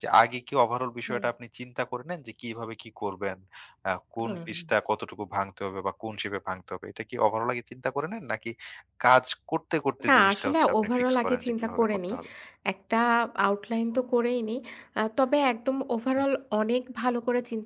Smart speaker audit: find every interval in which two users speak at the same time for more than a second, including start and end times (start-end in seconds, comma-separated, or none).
10.1-12.1